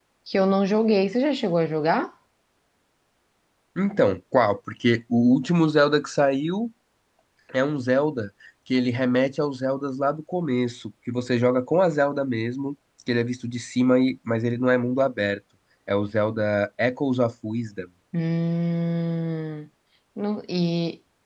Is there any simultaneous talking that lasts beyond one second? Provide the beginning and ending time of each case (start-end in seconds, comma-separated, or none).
none